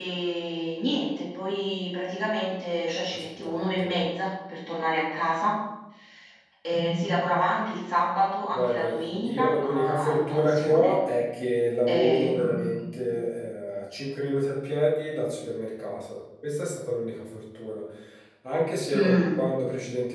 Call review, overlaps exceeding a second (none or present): present